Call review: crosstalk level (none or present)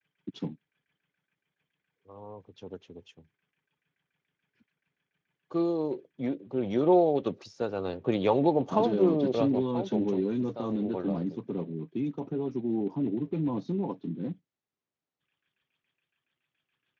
present